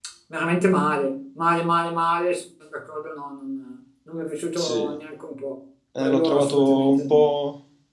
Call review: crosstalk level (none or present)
present